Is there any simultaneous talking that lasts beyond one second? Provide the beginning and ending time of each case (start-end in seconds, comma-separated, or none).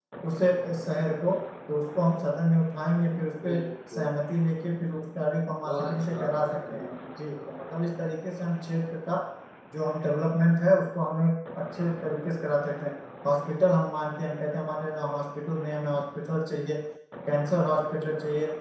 5.6-6.9